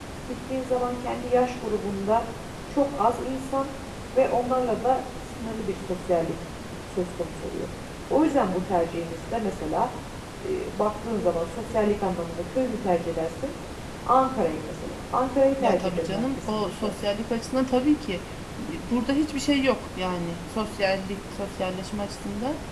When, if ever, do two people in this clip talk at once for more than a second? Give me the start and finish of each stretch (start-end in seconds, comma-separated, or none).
15.6-16.9